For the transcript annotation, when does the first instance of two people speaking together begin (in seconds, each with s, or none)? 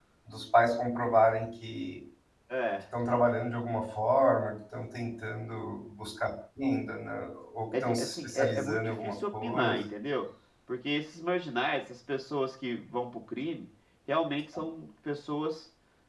7.7 s